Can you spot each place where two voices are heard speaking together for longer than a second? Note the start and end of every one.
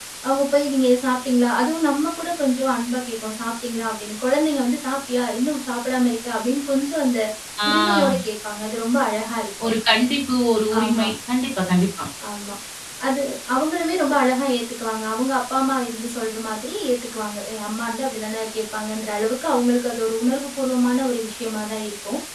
none

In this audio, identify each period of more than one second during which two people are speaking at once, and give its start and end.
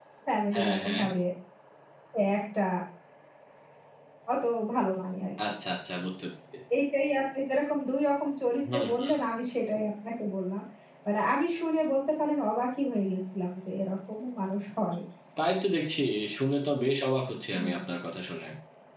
none

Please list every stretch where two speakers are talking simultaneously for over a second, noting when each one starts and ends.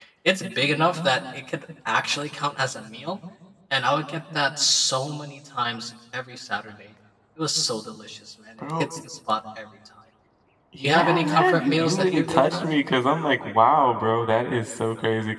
10.8-12.7

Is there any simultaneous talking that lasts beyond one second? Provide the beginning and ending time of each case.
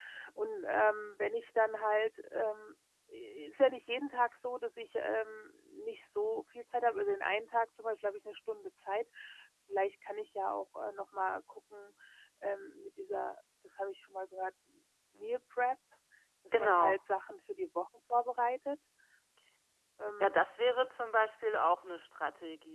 none

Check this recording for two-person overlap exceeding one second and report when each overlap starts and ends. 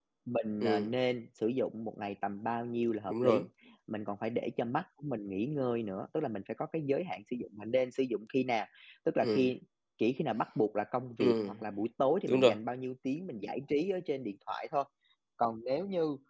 none

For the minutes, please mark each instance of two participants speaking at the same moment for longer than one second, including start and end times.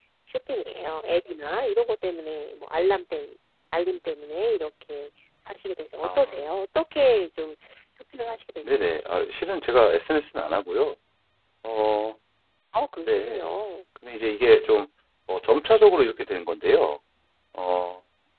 none

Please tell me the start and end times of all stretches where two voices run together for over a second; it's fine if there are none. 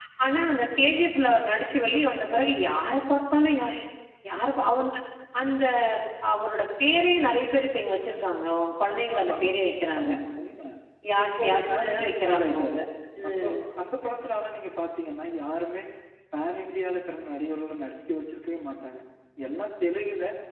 11.4-12.8

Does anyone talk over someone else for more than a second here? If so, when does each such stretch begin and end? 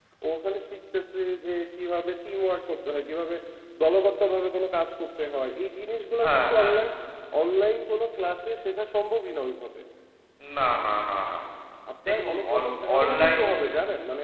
12.1-13.4

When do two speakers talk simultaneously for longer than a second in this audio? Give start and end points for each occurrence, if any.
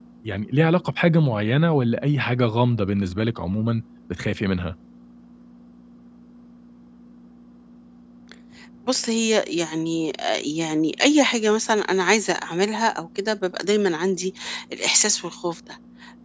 none

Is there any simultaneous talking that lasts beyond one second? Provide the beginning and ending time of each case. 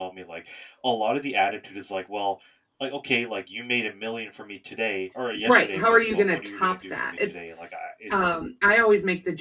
5.5-7.4

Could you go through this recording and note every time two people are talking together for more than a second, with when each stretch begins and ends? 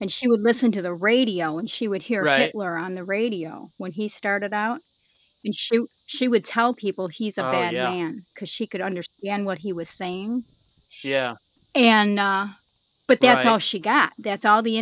none

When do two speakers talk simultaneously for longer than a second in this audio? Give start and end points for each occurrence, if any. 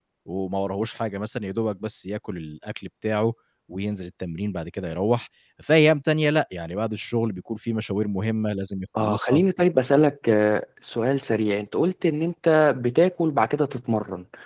none

